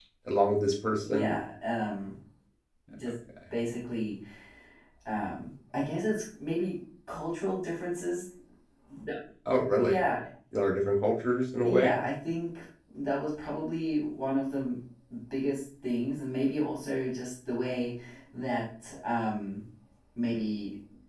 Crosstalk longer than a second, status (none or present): none